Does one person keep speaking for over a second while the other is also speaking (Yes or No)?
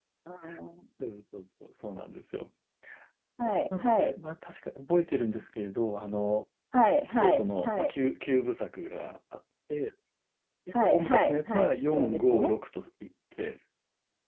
Yes